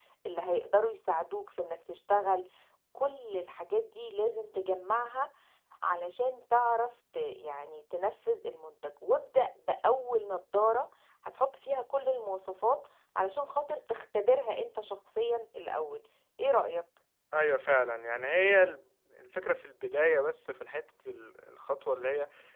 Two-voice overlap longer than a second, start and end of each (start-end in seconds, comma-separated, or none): none